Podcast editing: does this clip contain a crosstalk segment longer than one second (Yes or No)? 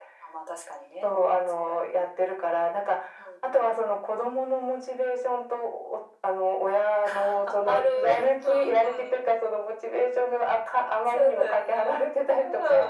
Yes